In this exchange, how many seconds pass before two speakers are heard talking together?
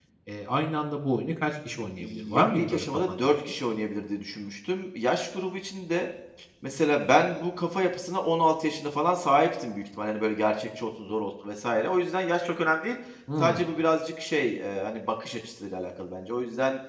2.0 s

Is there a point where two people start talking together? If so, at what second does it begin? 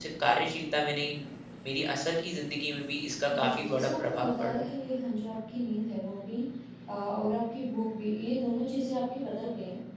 3.3 s

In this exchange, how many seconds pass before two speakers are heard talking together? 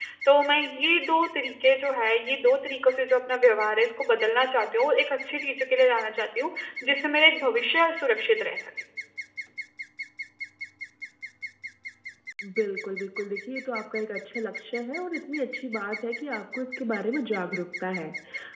none

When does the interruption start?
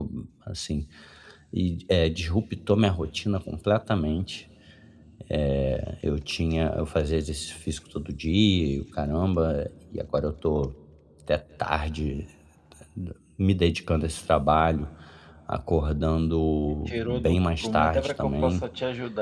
16.9 s

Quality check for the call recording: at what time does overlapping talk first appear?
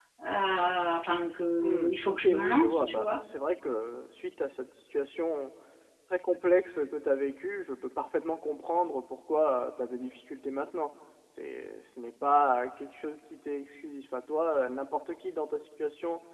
1.6 s

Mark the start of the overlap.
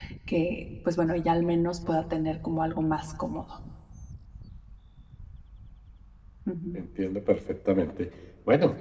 none

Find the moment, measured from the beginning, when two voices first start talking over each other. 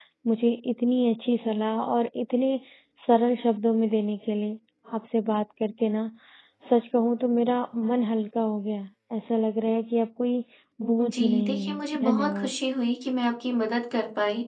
11.0 s

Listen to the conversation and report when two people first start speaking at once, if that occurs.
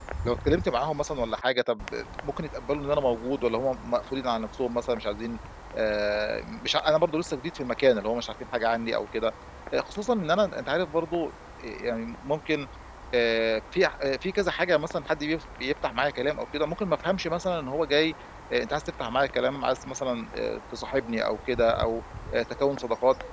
none

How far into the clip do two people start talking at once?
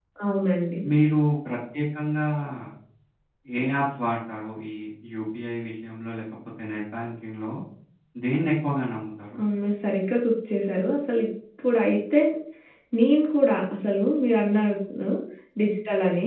none

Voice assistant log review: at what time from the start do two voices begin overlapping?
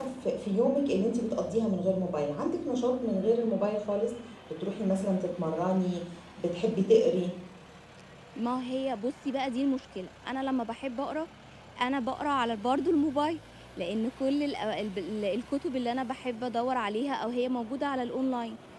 none

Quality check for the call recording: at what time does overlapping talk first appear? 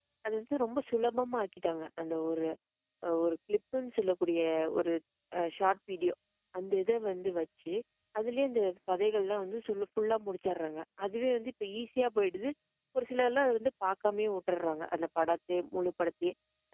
none

